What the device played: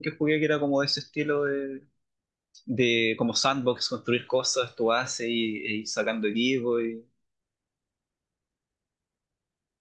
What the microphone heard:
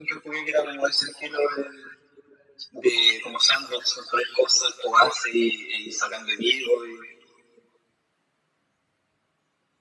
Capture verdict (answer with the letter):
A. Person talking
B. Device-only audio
B